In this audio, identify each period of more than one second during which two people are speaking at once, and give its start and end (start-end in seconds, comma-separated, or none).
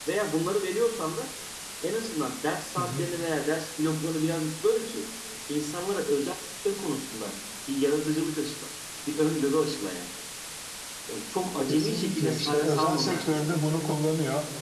11.7-13.6